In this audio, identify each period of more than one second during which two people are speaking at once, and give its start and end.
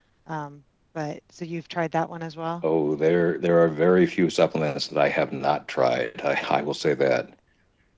none

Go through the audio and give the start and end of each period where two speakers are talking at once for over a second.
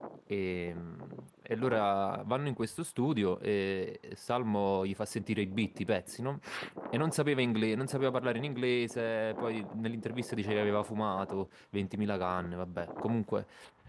none

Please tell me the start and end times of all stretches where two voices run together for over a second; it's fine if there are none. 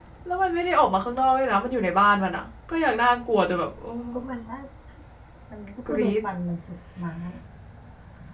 none

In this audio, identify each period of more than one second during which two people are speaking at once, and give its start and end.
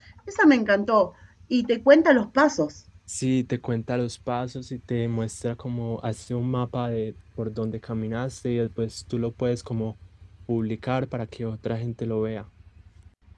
none

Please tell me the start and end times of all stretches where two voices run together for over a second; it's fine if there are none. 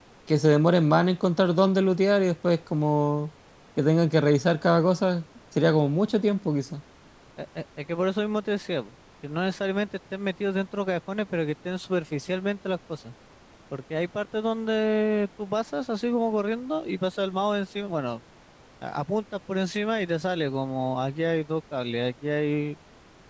none

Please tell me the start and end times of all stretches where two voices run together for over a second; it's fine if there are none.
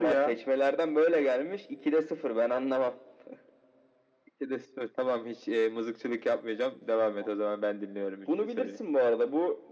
none

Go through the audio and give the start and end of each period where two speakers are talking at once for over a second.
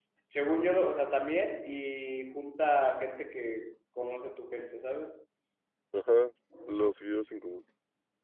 none

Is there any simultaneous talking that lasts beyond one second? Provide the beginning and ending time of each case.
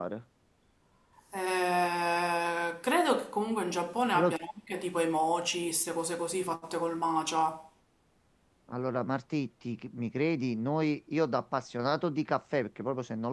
none

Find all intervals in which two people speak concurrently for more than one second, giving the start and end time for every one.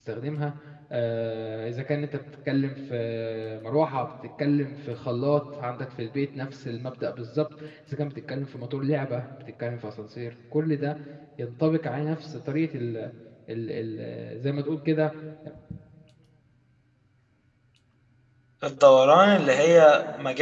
none

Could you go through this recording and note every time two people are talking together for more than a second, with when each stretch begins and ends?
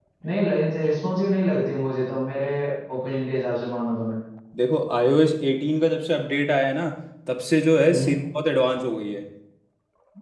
none

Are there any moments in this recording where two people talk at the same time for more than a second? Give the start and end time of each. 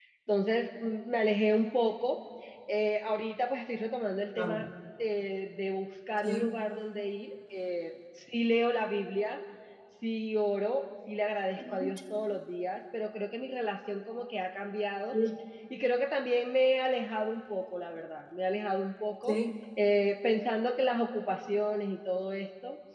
none

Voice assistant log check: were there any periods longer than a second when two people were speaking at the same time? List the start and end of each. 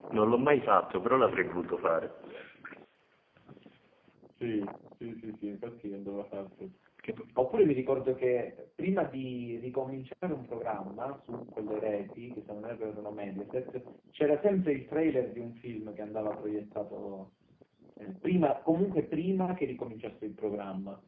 none

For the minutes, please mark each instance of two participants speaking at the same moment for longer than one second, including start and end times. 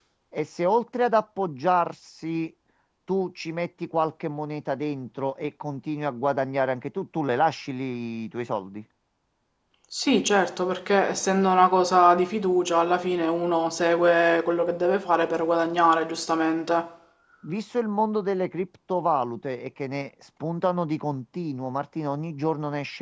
none

